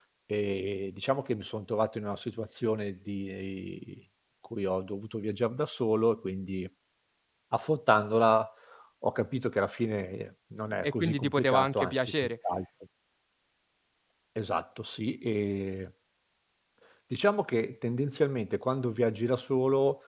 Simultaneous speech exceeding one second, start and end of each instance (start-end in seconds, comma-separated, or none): 10.8-12.3